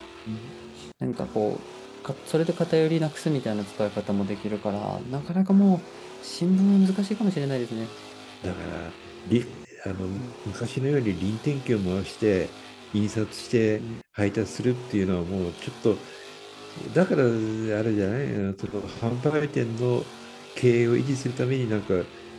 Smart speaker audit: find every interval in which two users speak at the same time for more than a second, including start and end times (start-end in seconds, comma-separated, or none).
none